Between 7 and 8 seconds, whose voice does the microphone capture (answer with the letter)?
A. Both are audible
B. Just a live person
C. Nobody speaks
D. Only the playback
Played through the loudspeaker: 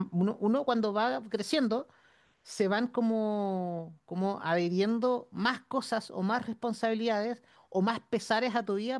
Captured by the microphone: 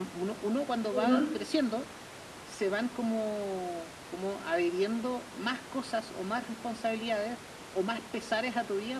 D